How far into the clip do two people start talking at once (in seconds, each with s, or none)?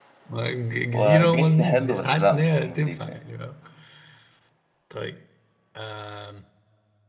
0.9 s